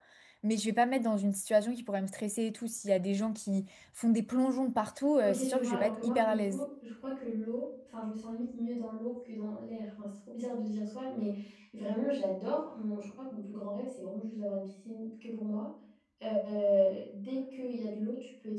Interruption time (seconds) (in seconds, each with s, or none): 5.2 s